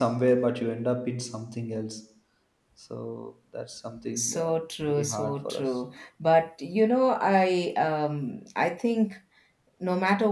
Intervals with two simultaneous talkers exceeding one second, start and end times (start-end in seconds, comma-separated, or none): 4.2-5.7